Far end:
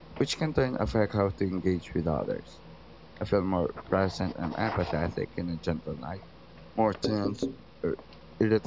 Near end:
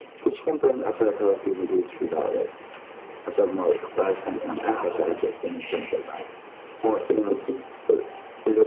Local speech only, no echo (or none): none